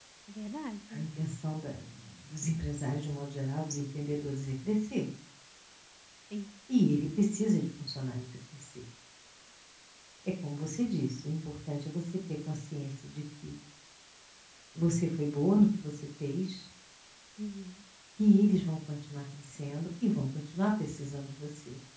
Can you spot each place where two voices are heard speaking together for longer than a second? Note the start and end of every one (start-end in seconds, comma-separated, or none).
none